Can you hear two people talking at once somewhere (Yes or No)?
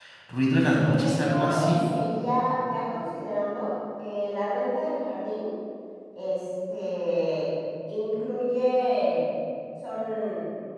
Yes